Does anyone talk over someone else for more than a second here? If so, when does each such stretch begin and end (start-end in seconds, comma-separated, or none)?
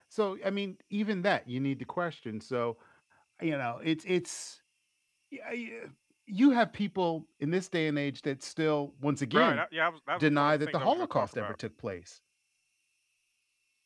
10.2-11.6